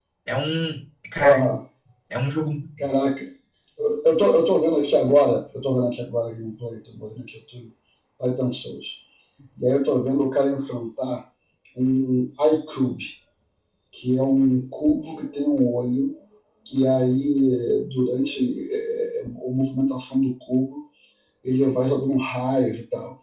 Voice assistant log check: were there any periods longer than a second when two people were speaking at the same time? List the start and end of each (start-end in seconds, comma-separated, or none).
none